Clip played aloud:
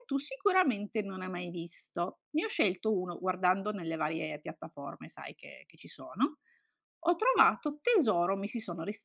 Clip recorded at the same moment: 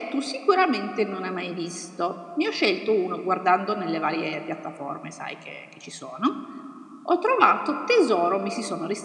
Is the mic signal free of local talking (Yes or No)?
Yes